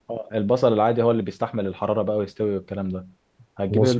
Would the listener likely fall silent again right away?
Yes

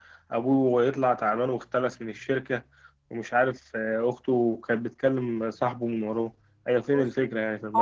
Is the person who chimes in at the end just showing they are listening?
No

